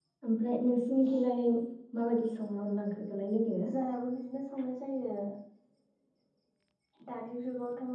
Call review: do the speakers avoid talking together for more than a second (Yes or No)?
Yes